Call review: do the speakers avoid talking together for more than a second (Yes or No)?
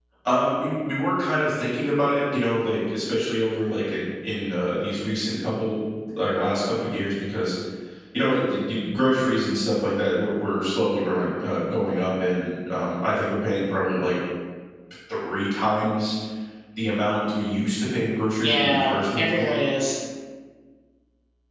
No